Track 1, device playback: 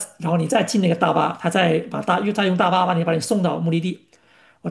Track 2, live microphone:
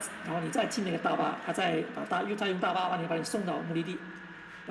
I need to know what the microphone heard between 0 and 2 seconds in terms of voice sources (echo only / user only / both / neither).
echo only